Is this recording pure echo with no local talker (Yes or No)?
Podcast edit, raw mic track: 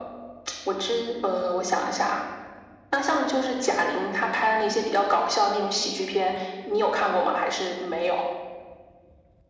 No